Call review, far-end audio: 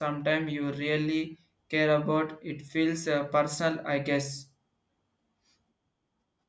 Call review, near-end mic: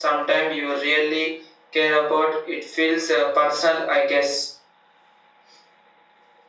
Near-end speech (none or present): none